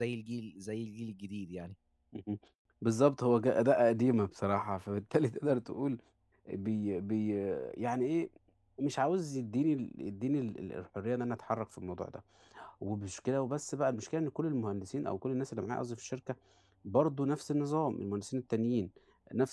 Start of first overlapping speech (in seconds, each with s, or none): none